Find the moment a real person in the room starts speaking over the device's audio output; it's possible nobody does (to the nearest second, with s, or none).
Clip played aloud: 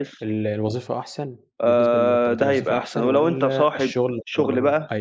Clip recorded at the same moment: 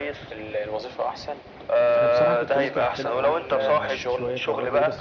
2 s